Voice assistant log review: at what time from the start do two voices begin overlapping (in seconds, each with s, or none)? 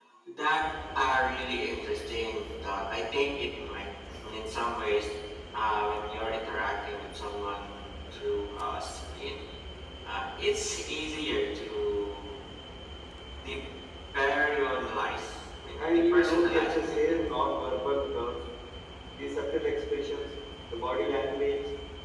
15.8 s